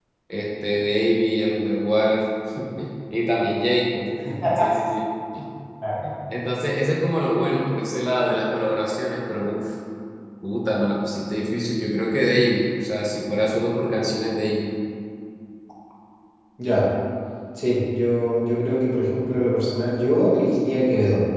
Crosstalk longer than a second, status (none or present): none